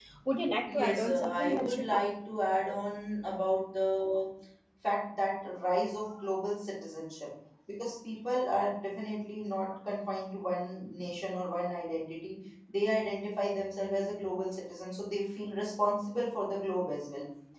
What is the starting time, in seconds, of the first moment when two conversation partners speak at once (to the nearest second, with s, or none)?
1 s